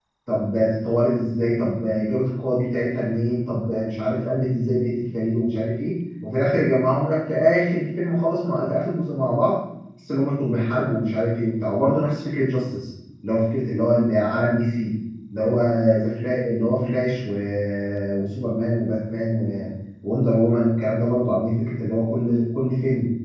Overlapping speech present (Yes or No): No